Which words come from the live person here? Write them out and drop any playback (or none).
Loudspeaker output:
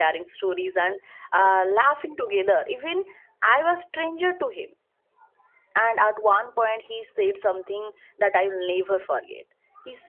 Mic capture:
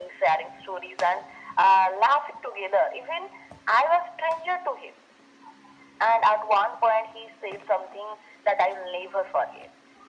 none